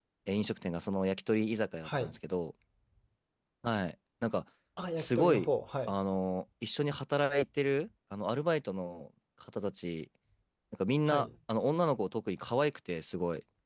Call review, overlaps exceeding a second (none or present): none